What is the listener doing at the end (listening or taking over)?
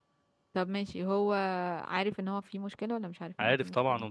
taking over